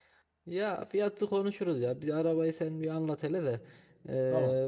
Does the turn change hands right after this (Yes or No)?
No